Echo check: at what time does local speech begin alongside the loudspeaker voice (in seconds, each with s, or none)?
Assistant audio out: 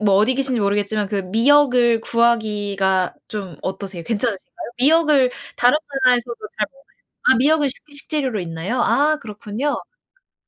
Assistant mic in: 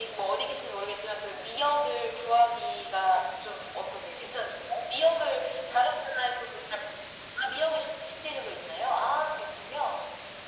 none